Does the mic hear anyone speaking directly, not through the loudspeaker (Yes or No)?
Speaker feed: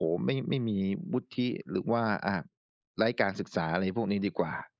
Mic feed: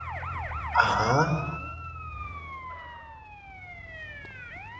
Yes